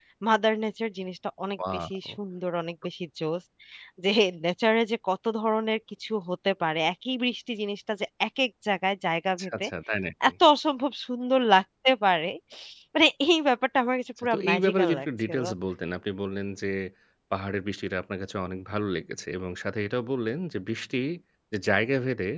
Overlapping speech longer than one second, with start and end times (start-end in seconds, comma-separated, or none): 14.2-15.4